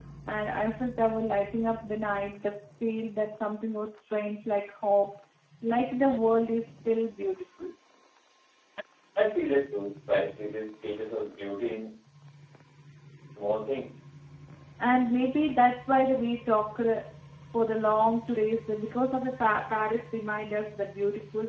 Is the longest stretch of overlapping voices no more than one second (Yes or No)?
Yes